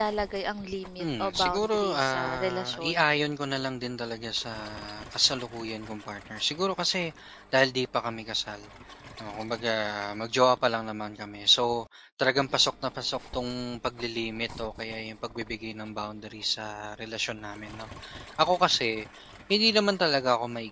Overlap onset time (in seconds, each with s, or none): 1.0 s